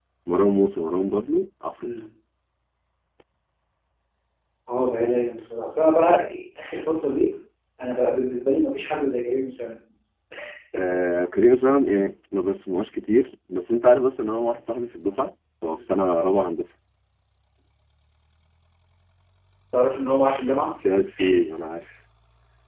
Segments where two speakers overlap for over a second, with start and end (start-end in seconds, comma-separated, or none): none